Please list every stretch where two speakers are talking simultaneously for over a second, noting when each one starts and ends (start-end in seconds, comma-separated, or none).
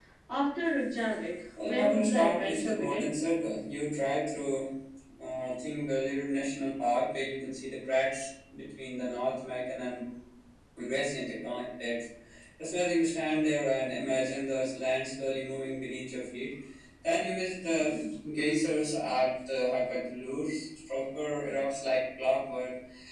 1.6-3.1